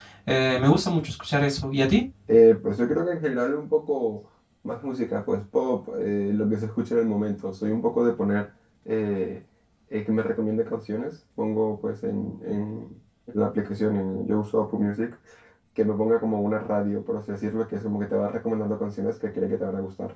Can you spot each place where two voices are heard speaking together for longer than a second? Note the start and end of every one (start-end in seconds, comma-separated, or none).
none